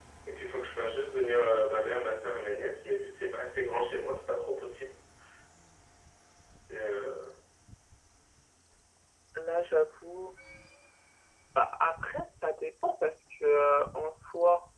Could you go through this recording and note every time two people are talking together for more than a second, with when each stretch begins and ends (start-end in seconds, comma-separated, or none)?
none